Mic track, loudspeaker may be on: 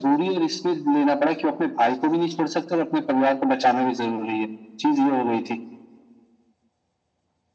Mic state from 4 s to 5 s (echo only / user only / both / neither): echo only